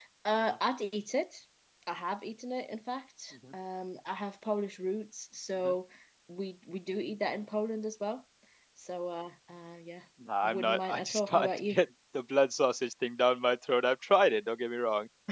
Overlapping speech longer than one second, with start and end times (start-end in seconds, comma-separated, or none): 10.4-11.8